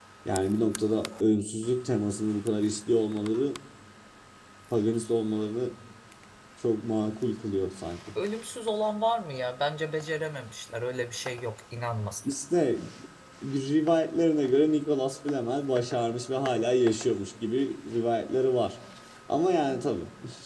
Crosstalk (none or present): none